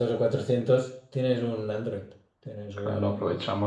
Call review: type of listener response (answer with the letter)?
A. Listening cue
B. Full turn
B